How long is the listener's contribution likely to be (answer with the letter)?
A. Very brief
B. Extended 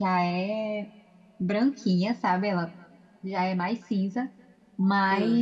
A